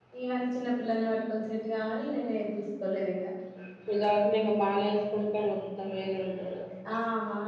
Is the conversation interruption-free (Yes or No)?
Yes